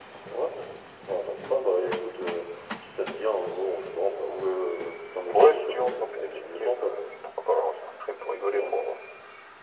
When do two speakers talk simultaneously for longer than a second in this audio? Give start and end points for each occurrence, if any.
5.3-6.9

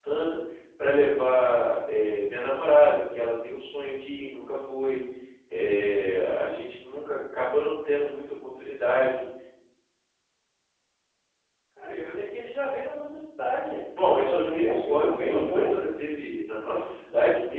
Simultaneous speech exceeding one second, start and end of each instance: 14.0-15.8

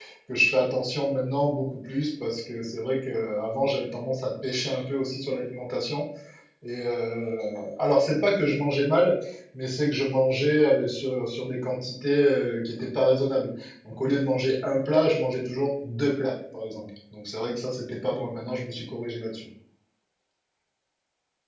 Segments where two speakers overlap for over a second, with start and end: none

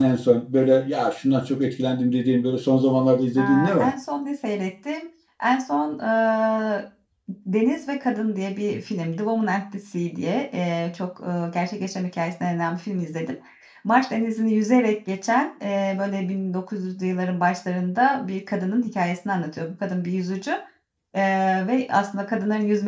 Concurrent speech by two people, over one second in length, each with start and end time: none

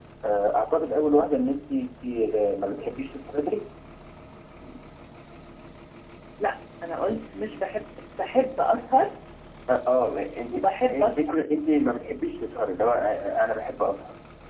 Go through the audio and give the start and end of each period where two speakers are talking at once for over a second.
none

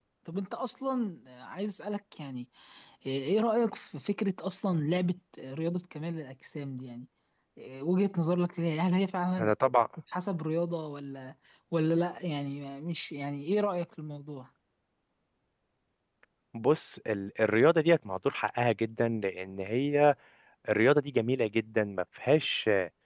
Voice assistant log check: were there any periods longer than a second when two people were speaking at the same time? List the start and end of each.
none

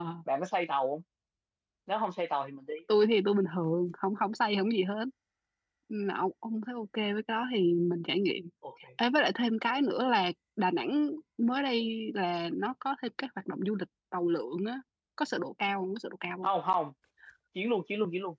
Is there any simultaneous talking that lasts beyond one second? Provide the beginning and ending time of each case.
none

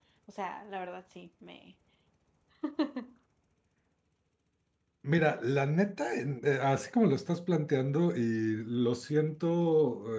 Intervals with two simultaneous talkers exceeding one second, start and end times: none

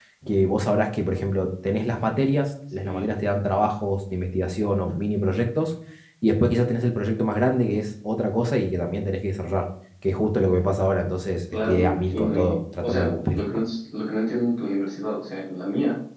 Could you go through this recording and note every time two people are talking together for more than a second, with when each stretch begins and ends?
11.7-13.4

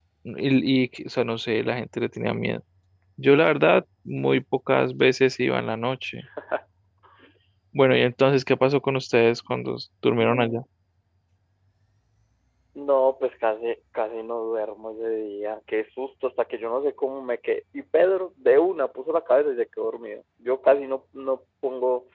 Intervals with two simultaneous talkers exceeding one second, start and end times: none

